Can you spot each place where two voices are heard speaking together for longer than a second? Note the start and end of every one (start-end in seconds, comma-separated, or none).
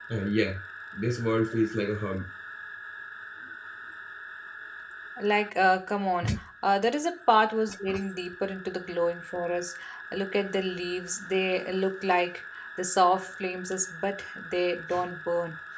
none